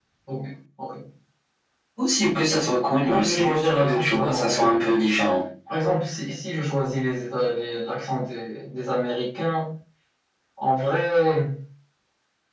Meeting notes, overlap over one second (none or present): present